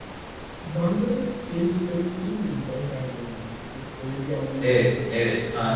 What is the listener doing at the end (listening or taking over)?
taking over